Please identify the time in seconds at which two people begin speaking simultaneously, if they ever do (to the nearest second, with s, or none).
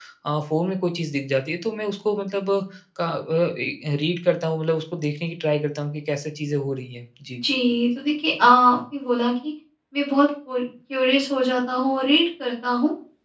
none